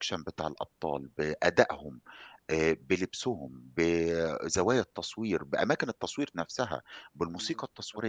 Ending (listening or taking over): taking over